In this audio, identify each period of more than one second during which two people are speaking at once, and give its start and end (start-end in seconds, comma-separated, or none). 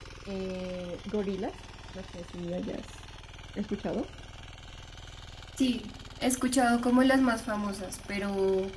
none